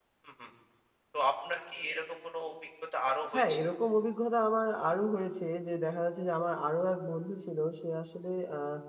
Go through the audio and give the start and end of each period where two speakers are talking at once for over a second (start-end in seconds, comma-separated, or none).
none